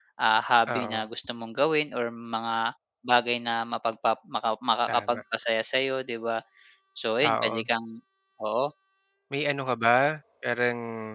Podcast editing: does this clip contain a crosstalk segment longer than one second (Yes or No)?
No